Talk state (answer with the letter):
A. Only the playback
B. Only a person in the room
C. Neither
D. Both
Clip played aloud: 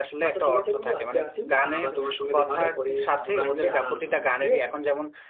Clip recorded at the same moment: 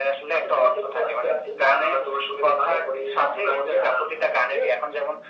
A